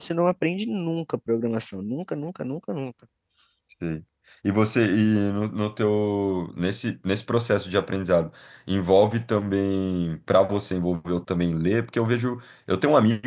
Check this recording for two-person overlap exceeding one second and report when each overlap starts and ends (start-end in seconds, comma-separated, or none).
none